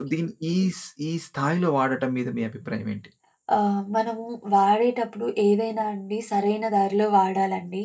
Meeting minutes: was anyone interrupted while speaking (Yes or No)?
No